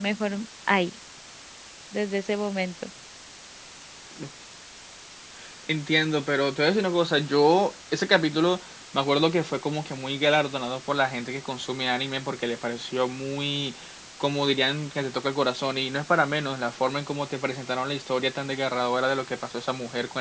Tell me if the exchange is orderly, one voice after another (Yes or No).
Yes